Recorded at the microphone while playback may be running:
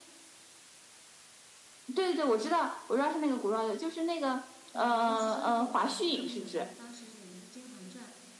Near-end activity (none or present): present